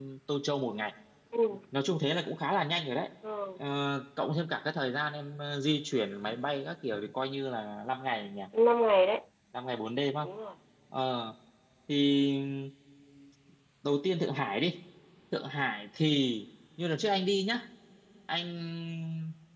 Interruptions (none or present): none